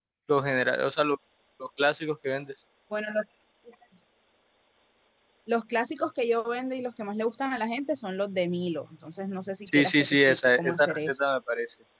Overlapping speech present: Yes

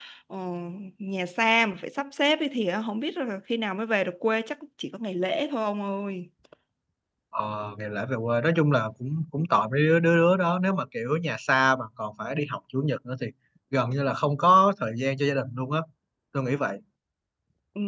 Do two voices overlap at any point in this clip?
No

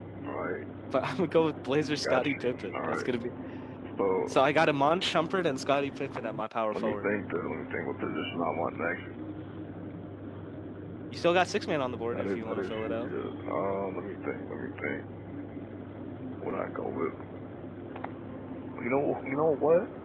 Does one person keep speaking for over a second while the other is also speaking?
Yes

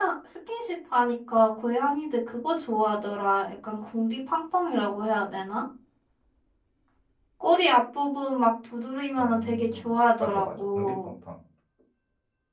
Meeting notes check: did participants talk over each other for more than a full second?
Yes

